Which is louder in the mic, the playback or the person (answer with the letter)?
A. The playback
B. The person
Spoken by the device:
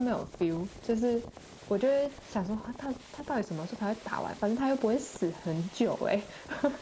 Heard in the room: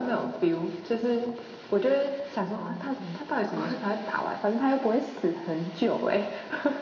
A